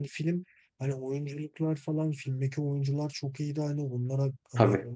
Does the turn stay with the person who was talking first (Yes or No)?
Yes